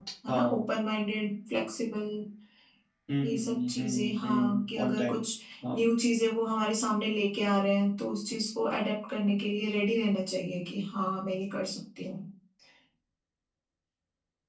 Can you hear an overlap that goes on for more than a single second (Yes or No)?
Yes